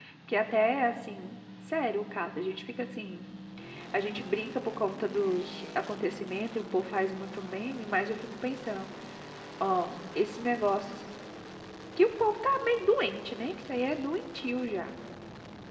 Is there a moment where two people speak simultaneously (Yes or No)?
No